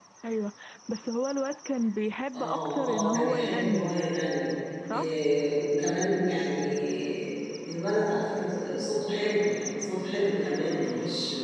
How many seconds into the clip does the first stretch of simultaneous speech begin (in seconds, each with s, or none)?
2.3 s